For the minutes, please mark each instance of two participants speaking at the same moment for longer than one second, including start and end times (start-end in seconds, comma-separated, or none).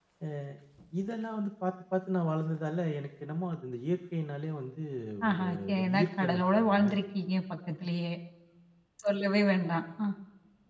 5.3-6.9